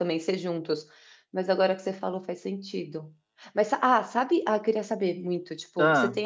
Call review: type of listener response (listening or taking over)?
listening